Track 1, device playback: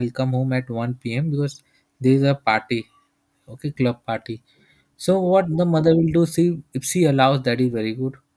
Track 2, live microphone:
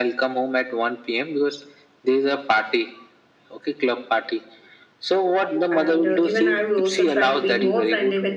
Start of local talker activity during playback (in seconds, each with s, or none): 5.8 s